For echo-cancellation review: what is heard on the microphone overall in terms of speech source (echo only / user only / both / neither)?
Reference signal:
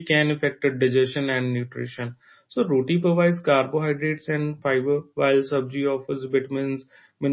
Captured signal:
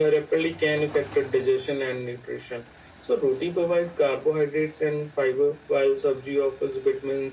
echo only